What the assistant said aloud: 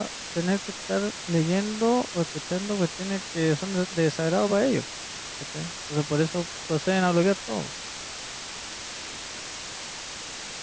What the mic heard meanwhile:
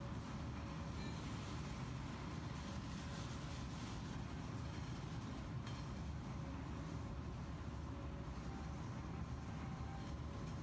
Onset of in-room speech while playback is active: none

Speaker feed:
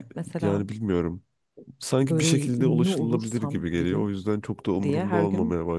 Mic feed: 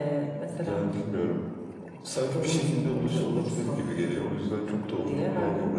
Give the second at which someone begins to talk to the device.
none

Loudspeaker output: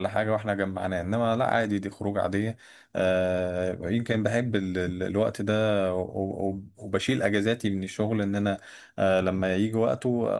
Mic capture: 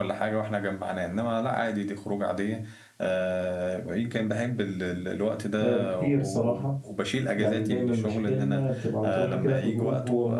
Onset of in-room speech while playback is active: 5.6 s

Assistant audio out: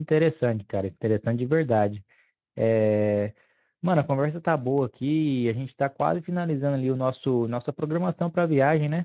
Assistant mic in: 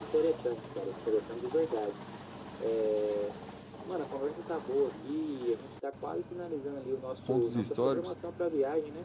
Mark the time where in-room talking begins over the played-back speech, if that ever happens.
7.2 s

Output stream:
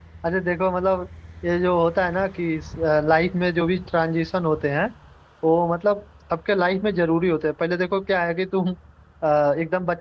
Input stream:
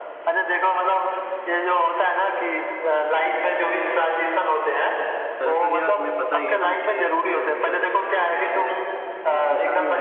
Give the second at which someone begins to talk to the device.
5.4 s

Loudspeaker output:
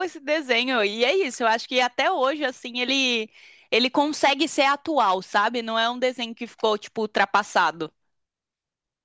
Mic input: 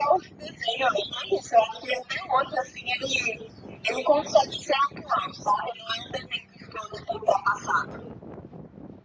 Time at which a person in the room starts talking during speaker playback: none

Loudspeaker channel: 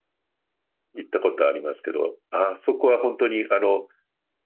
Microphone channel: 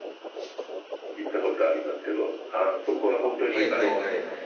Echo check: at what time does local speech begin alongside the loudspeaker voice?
3.5 s

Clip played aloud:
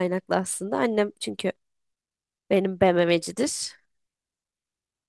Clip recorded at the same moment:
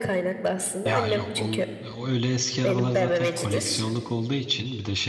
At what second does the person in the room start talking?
0.8 s

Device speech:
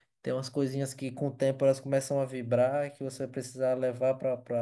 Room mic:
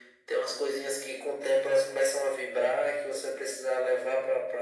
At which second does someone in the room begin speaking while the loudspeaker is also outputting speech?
none

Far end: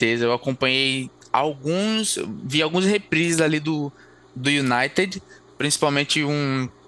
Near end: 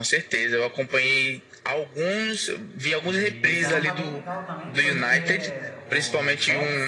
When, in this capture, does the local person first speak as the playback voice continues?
3.0 s

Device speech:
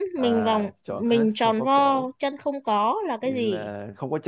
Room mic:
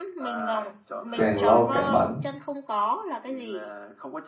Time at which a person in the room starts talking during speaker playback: 1.2 s

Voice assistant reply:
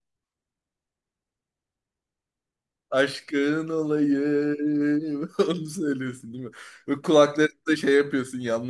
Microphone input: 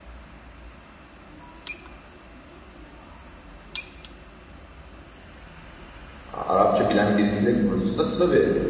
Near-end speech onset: 6.3 s

